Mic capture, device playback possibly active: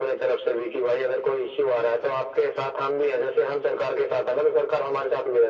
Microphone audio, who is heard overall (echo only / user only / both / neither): echo only